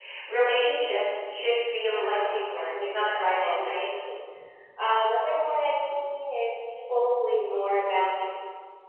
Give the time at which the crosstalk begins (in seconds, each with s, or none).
1.8 s